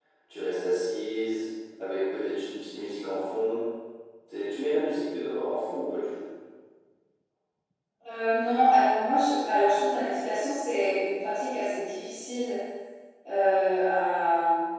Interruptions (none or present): none